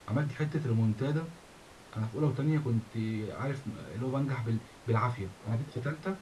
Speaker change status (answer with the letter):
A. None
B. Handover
A